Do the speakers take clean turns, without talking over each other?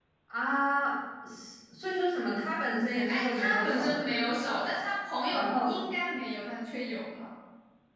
No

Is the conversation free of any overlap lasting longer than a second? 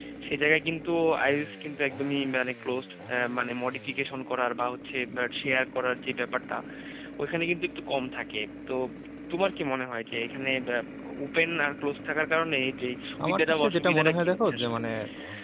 No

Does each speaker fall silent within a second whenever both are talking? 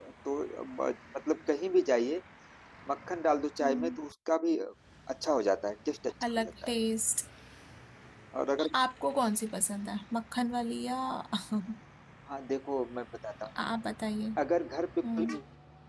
Yes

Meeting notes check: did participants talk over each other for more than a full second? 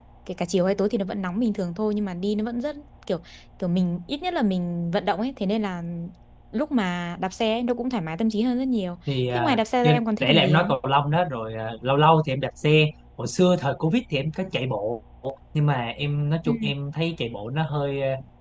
Yes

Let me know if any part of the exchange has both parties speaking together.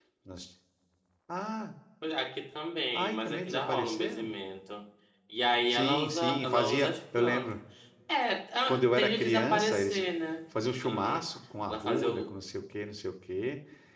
Yes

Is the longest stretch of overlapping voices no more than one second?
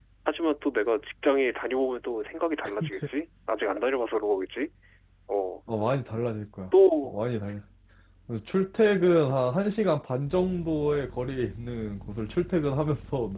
Yes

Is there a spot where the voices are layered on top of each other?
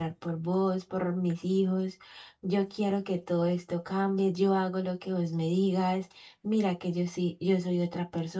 No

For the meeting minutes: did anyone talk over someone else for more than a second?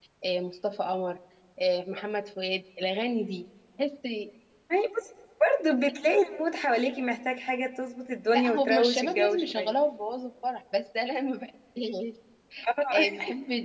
Yes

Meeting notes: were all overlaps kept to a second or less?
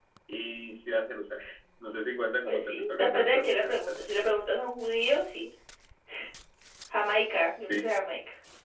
No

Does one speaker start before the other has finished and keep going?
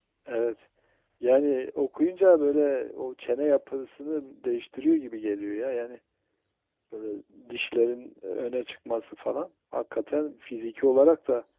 No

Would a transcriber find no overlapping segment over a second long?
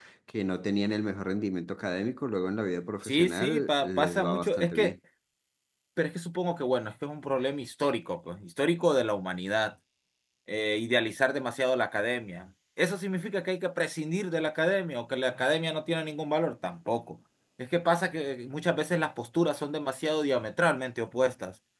No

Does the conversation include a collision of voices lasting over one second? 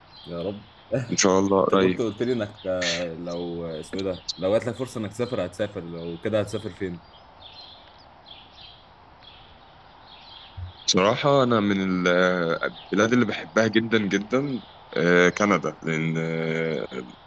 No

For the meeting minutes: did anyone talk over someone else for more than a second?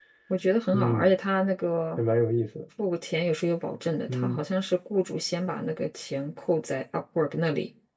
No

